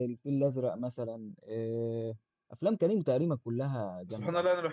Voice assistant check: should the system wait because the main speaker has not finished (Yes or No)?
No